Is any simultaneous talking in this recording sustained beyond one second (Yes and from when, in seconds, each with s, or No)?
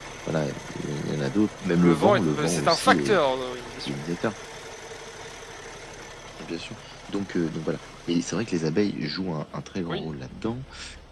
Yes, from 1.8 s